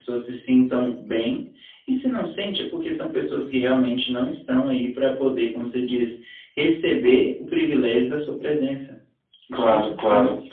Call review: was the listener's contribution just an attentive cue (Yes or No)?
No